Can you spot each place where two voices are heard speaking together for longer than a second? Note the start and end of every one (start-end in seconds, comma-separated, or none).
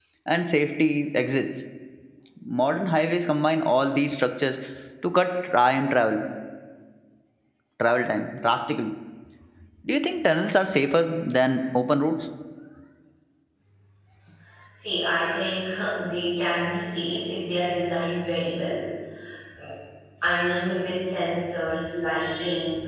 none